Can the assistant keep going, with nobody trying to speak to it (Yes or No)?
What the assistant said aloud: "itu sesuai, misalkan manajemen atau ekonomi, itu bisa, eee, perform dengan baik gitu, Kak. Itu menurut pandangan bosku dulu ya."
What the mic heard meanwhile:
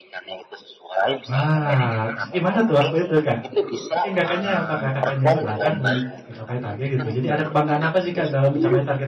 No